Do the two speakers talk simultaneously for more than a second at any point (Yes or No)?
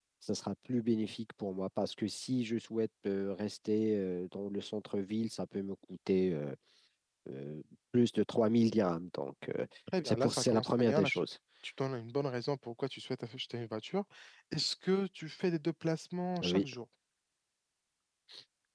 Yes